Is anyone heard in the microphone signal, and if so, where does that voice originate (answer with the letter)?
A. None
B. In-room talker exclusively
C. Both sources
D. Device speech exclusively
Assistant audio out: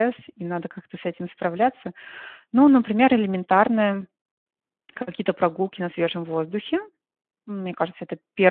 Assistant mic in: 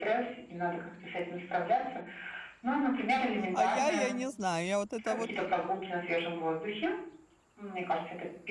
C